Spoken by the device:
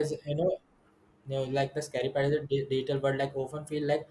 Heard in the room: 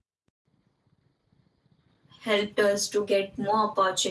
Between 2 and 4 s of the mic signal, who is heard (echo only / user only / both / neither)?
user only